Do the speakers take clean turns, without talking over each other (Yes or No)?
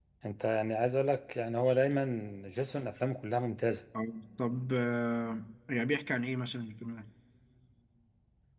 Yes